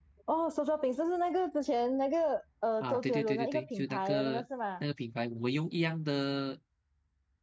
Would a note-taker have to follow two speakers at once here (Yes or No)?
Yes